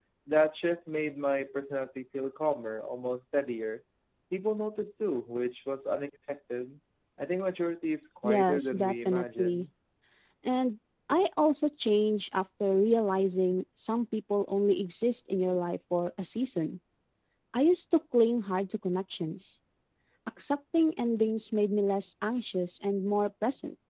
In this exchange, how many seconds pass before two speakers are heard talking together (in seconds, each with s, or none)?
8.2 s